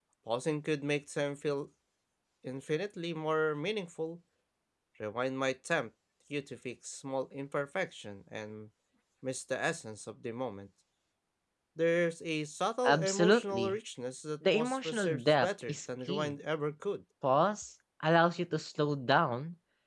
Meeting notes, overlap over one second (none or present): present